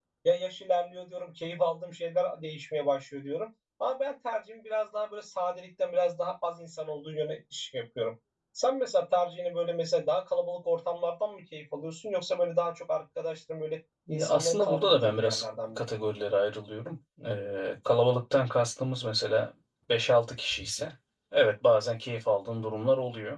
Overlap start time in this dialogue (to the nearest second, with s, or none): 14 s